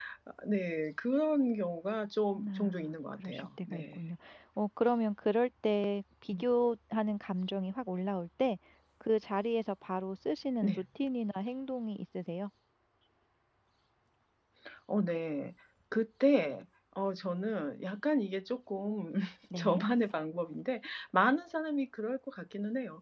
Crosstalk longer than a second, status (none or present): present